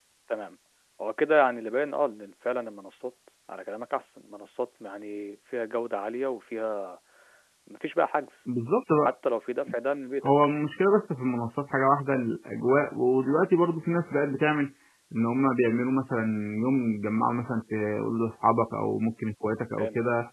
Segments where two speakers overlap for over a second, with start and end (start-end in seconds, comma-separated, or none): none